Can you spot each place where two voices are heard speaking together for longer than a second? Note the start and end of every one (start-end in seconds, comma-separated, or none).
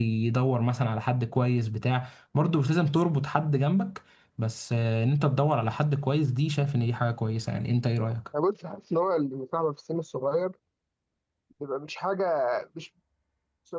none